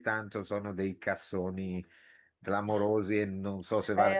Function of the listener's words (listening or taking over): taking over